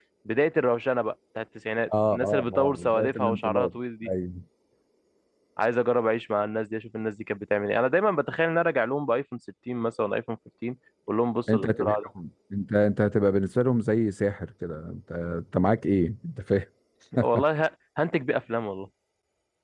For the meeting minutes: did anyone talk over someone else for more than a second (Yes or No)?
Yes